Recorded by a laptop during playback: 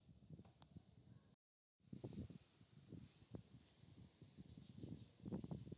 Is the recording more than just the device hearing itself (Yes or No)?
No